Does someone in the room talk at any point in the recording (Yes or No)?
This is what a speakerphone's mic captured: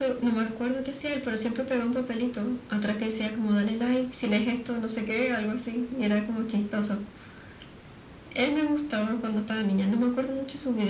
No